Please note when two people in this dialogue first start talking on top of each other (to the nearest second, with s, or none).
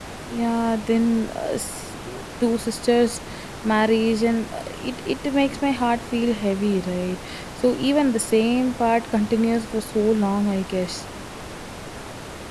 none